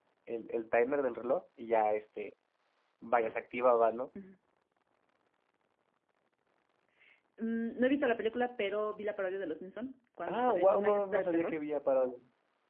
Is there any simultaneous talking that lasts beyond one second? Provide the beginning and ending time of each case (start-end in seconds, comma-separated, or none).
10.3-11.6